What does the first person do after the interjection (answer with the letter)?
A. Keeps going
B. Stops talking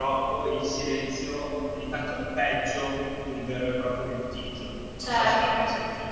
B